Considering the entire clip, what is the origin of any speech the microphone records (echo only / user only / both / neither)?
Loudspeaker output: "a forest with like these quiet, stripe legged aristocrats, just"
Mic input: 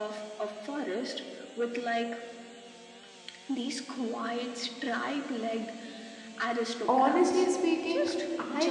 both